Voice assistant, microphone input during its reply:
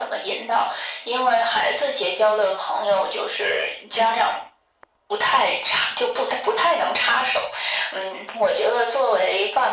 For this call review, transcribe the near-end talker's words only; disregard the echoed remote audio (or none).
none